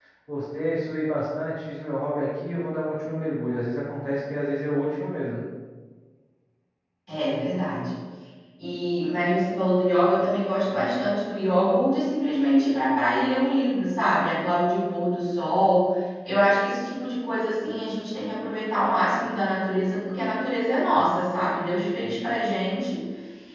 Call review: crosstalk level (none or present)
none